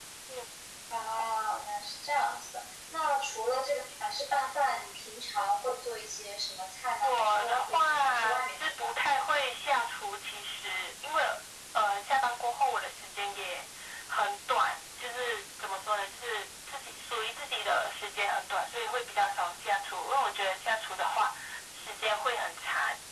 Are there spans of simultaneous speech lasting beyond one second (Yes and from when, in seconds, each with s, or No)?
Yes, from 7.0 s